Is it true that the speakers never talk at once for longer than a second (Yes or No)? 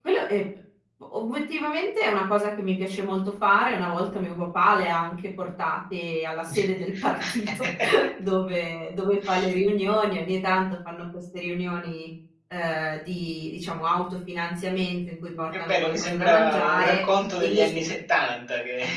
No